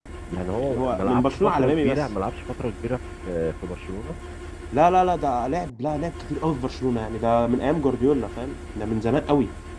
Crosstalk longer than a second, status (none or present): present